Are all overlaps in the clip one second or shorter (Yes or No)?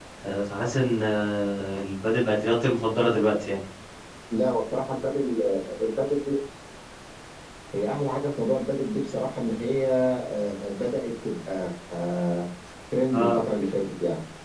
Yes